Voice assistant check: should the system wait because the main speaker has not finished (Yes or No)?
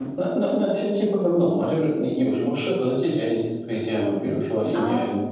No